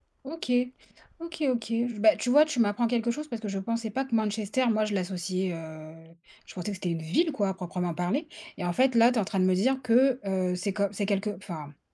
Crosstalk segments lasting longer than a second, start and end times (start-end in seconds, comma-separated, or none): none